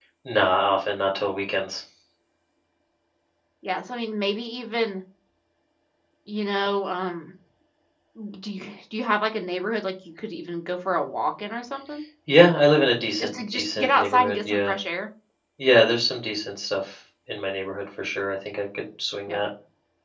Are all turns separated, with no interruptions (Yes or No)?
No